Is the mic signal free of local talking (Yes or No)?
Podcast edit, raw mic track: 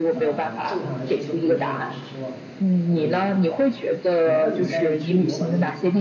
No